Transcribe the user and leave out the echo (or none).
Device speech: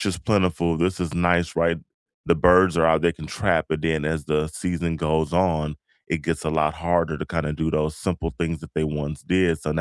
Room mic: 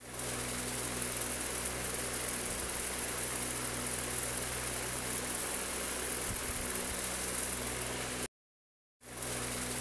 none